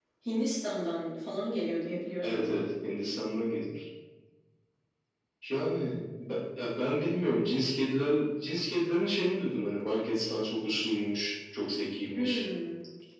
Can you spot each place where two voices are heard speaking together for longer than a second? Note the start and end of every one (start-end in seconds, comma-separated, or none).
none